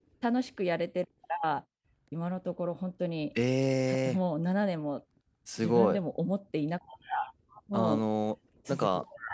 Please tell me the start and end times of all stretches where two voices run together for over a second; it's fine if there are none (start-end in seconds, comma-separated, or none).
none